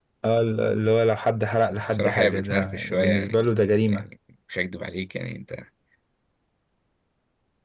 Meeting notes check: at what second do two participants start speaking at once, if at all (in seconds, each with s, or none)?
1.8 s